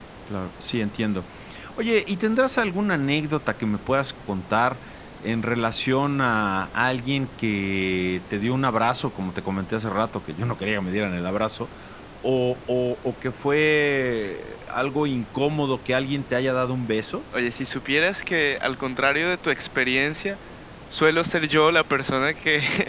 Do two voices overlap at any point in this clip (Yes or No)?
No